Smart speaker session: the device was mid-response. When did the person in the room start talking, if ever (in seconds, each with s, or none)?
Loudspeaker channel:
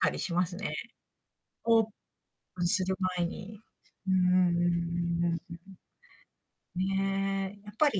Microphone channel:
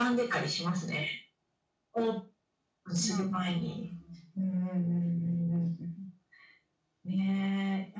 3.0 s